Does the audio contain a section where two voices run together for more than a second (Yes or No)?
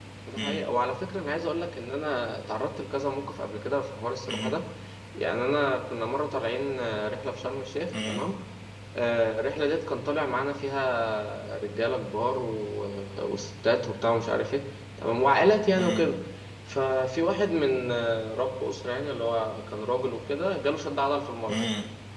No